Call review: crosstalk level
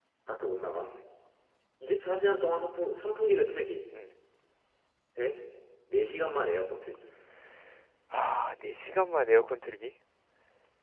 none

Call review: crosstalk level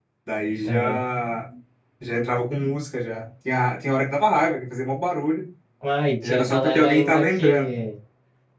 present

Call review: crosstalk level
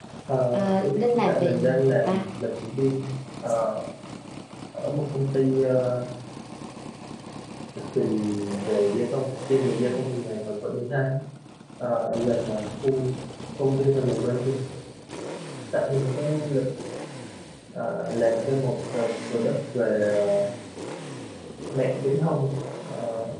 present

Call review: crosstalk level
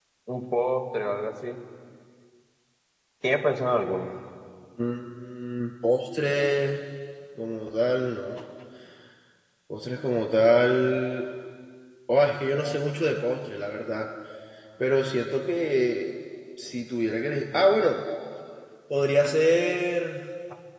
none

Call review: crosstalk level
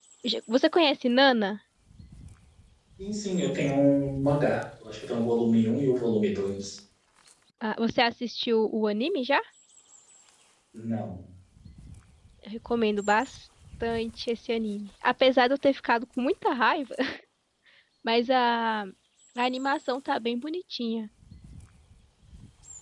none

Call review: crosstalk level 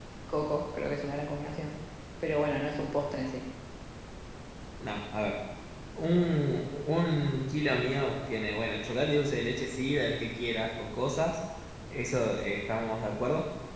none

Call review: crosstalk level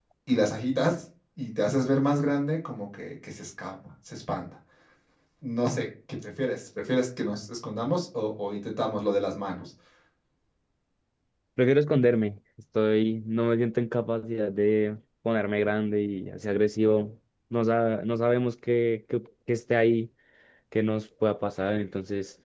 none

